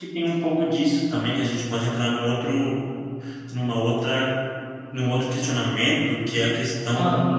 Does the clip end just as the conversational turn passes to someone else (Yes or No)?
No